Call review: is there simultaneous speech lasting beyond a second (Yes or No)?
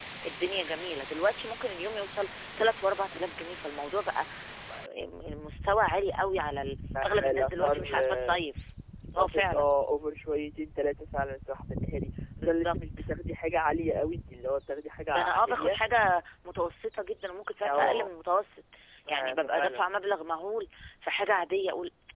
Yes